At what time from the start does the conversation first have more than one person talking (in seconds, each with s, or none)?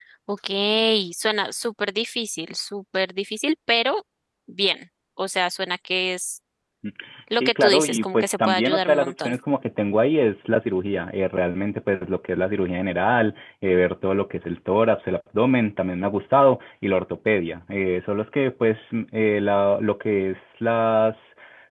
7.4 s